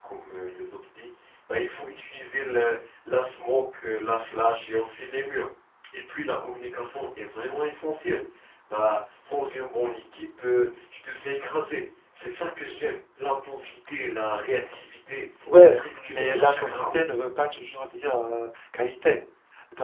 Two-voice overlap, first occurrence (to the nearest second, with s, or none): 15 s